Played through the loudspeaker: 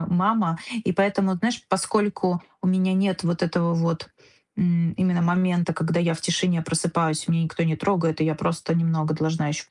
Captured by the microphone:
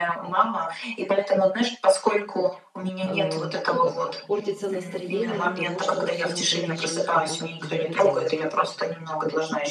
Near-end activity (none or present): present